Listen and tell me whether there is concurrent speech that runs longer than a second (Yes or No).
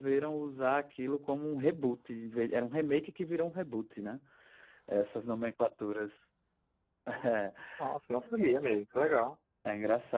No